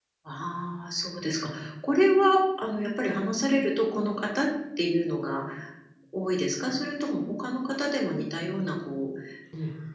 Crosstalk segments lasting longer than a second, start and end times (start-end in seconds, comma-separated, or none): none